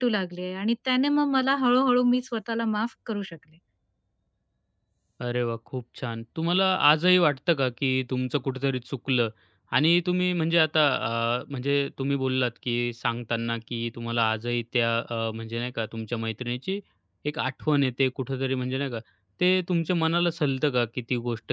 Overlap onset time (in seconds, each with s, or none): none